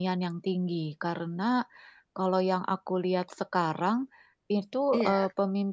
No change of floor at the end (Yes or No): Yes